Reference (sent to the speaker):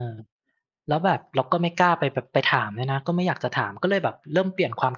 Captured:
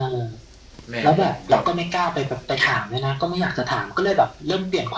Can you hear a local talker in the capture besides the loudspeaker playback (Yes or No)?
Yes